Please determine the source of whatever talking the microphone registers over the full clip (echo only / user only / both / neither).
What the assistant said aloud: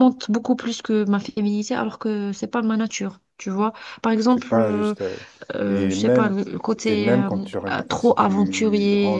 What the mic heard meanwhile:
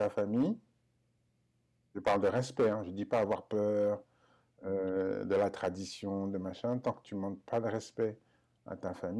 user only